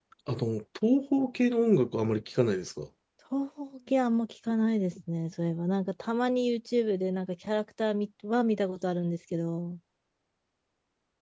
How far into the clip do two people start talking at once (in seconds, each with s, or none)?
none